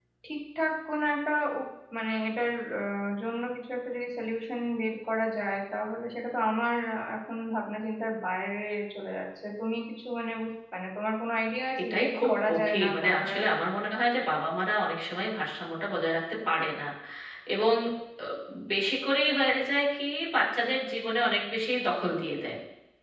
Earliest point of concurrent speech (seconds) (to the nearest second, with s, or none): 12 s